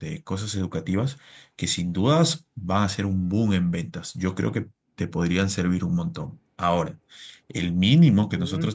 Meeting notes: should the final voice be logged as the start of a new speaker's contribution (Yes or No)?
No